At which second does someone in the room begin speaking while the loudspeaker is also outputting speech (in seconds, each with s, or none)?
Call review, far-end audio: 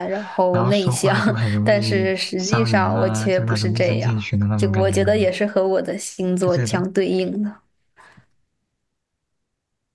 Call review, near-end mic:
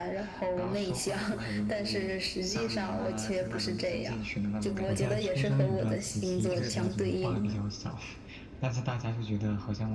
4.8 s